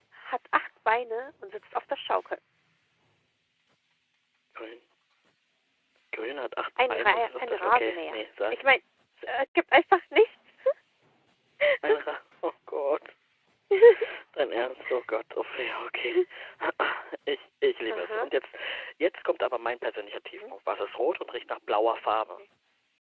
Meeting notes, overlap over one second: present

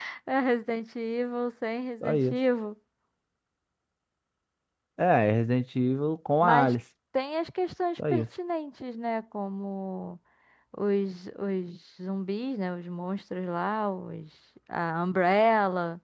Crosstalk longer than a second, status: none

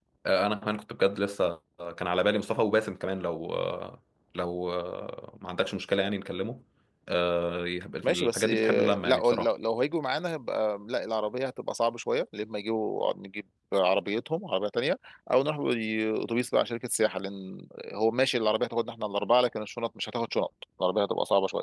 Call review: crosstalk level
present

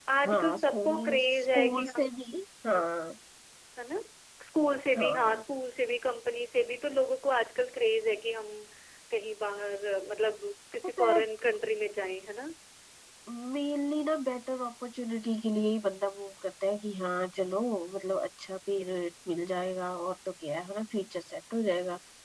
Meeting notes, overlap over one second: present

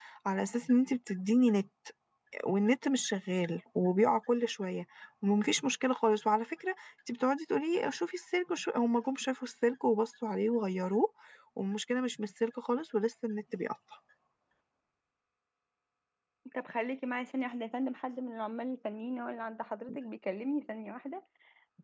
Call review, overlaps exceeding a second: none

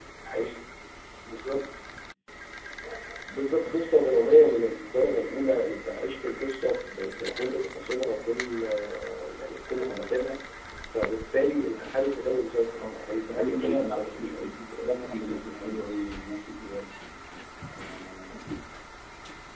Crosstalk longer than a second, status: present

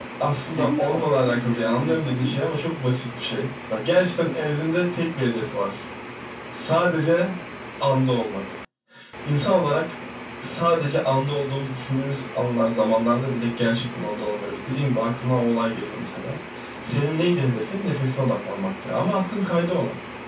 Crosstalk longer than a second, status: present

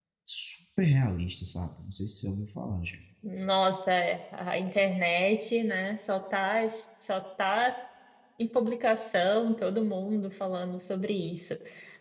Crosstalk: none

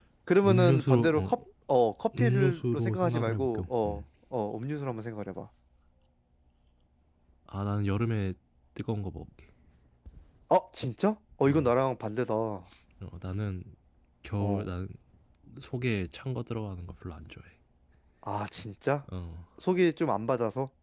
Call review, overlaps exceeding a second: present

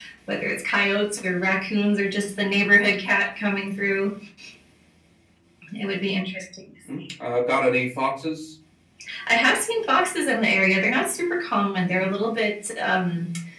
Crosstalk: none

